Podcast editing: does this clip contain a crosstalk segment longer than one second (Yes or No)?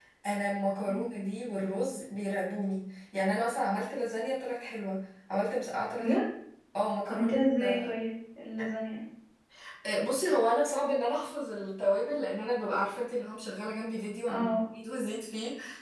No